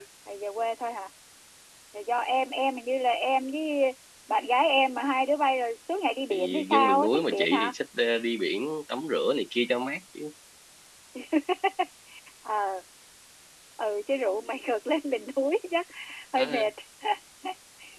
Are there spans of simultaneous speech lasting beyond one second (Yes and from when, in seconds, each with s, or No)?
Yes, from 6.3 s